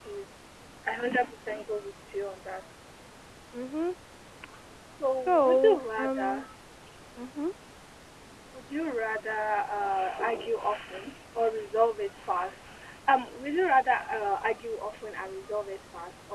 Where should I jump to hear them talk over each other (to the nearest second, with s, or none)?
5 s